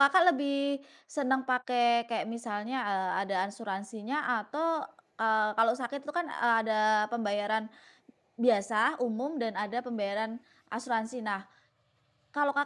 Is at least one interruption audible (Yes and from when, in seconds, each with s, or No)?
No